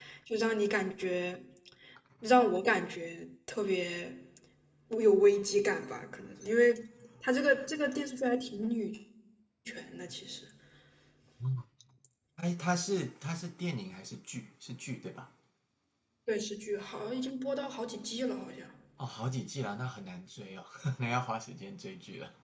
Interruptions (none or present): none